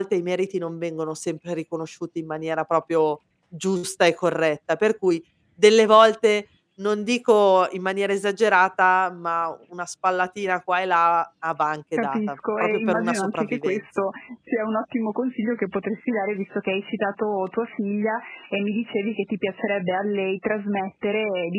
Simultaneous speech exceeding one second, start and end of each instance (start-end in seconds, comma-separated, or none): 12.0-13.8